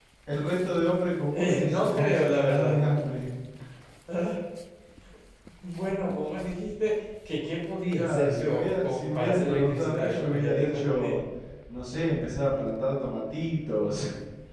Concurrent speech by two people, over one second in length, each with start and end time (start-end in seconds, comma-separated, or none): 1.3-2.8, 8.0-11.1